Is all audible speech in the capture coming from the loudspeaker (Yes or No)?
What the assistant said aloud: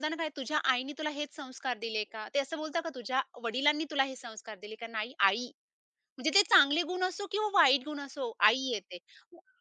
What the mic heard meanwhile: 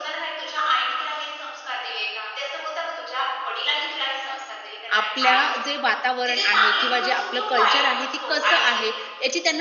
No